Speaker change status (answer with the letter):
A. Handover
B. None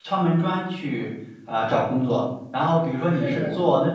B